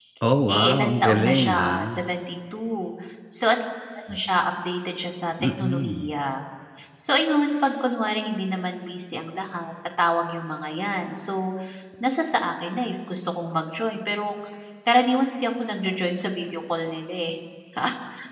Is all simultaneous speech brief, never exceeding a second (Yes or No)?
No